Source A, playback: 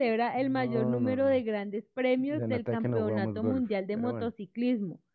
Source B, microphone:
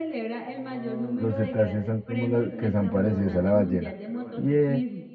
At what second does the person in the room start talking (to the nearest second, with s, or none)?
1 s